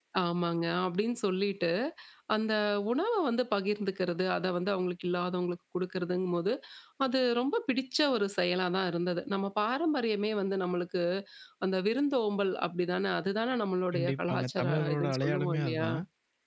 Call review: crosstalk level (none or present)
present